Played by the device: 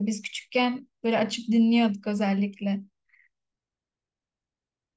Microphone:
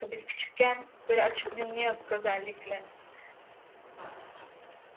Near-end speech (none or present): none